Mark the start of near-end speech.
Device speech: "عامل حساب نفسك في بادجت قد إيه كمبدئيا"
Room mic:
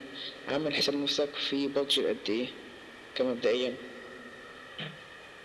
none

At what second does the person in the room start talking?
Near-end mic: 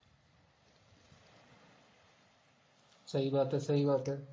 3.1 s

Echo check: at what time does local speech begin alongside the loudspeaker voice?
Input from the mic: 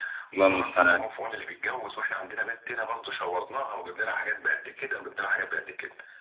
0.3 s

